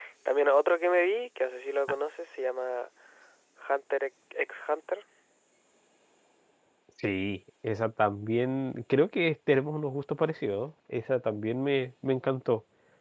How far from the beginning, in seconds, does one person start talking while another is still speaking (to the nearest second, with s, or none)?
none